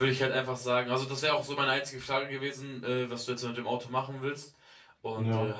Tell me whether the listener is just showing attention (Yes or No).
Yes